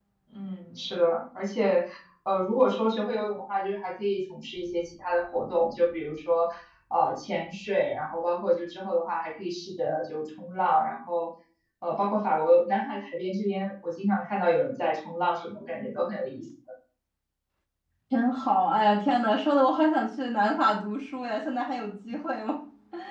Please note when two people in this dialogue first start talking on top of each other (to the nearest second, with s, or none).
none